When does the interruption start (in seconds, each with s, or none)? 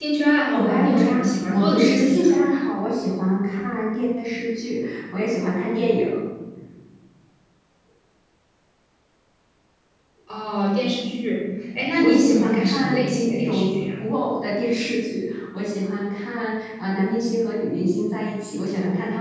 0.5 s